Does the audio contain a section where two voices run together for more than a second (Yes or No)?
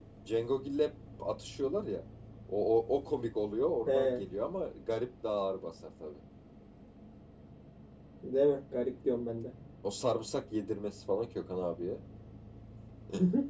No